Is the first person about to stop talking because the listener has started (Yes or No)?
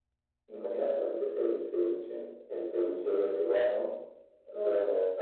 No